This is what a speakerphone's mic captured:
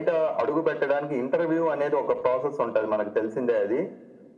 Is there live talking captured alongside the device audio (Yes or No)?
No